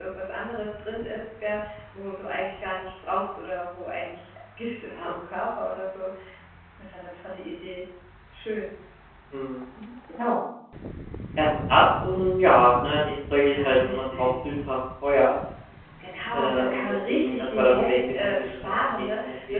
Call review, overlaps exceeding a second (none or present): present